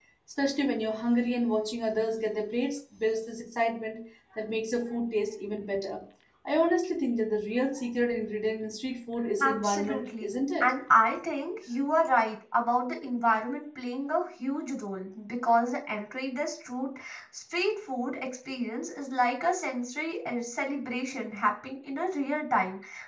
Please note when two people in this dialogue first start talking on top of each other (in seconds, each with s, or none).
9.4 s